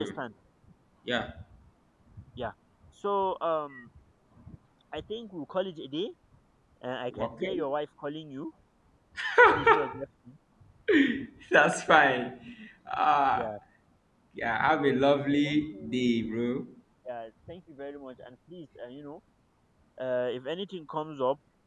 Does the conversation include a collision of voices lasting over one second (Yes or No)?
No